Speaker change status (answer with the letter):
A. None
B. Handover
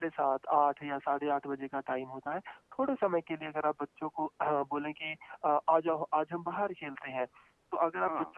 A